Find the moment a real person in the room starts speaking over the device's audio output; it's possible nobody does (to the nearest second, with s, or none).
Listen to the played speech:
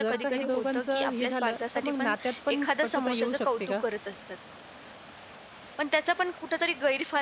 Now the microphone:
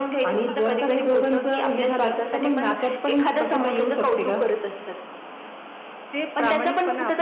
6 s